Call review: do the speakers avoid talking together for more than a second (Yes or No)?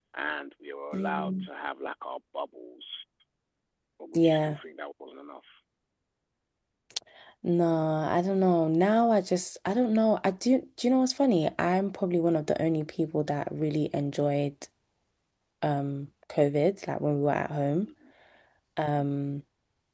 Yes